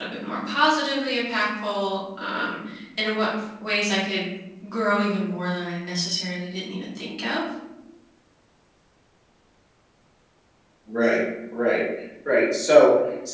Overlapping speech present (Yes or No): No